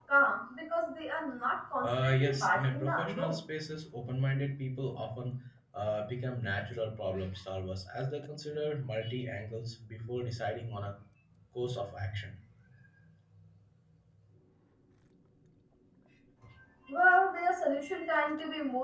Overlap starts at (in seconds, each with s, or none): 1.8 s